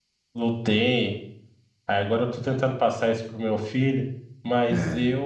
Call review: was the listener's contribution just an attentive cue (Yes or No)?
Yes